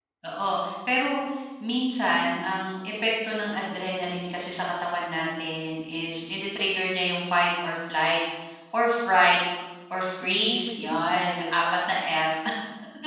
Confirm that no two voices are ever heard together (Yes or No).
No